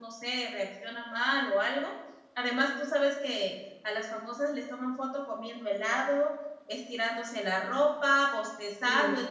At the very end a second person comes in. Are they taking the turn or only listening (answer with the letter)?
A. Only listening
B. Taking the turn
A